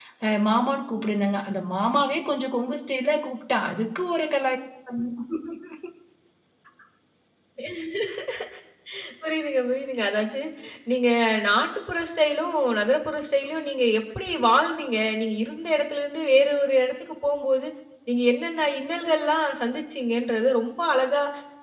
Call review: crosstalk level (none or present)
none